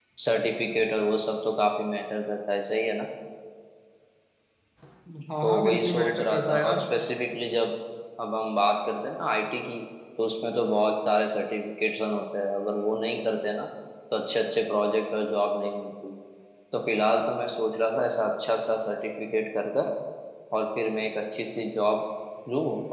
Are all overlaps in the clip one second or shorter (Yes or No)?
No